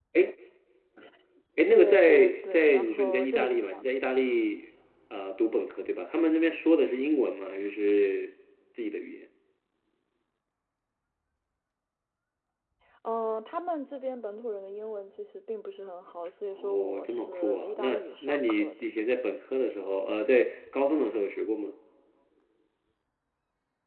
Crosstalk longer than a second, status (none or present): present